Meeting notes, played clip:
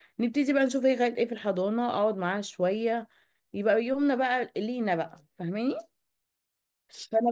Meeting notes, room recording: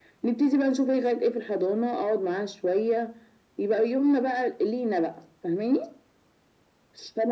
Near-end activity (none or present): none